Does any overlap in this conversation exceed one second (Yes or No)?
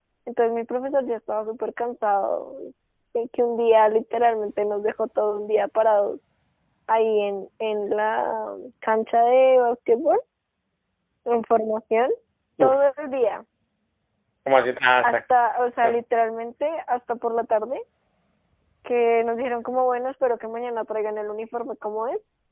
No